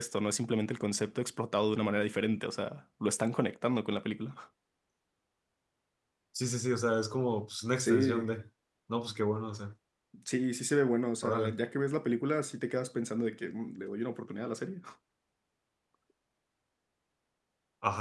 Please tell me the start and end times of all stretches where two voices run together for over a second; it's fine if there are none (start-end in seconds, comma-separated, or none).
none